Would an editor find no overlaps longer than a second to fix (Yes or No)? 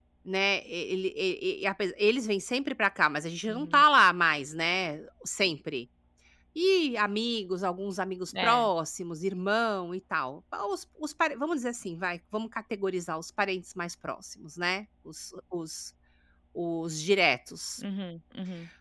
Yes